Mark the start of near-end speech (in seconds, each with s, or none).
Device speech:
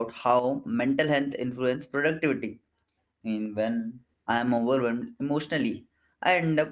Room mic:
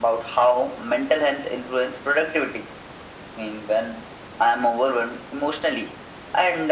none